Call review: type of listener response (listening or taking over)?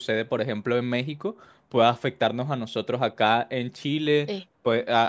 listening